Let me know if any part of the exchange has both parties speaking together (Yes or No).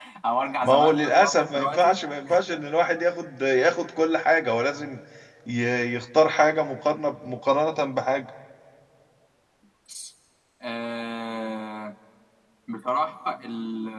Yes